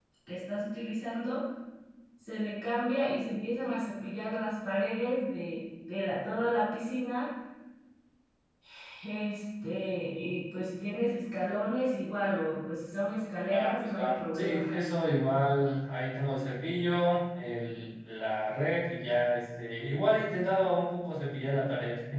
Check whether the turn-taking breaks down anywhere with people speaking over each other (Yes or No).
Yes